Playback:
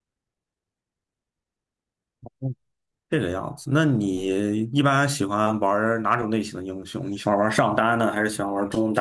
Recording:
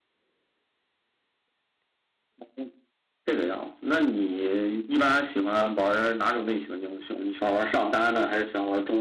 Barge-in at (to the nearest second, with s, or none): none